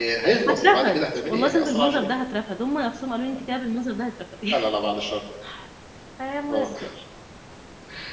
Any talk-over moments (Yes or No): Yes